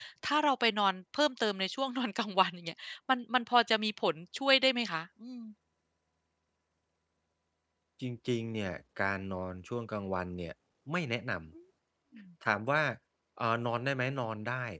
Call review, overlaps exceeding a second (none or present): none